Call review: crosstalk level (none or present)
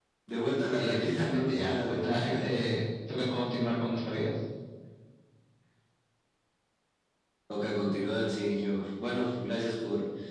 present